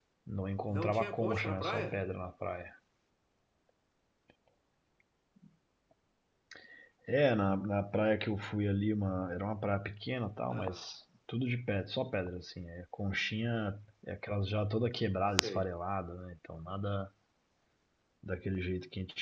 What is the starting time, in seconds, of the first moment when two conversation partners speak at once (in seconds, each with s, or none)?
0.7 s